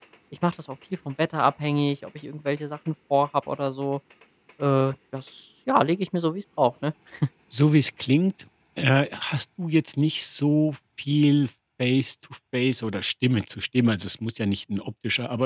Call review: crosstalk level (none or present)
none